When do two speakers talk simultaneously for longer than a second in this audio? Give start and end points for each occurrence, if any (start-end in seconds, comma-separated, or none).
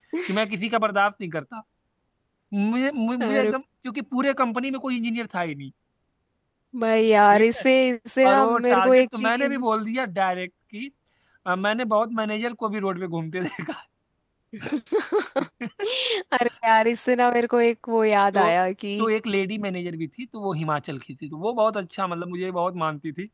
8.2-9.6